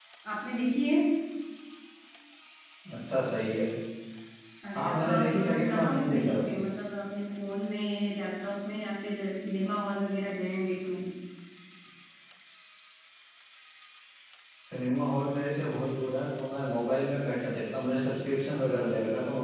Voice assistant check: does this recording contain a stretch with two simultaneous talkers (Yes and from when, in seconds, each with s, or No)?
Yes, from 4.8 s